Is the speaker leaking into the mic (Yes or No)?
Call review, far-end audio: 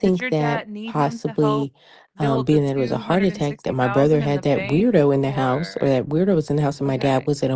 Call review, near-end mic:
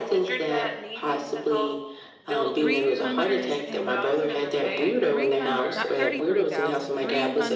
Yes